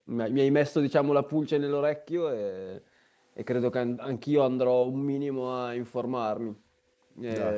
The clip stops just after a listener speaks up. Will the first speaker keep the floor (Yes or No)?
Yes